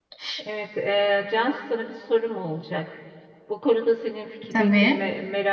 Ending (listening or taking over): listening